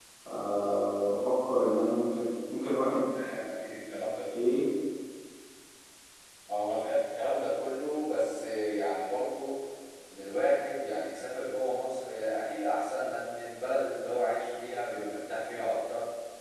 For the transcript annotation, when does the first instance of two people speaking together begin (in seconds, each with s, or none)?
none